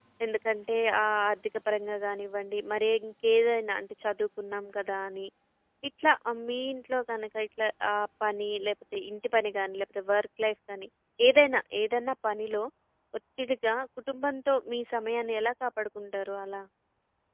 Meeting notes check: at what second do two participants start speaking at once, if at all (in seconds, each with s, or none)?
none